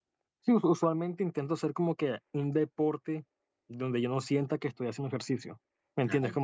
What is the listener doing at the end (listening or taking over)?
listening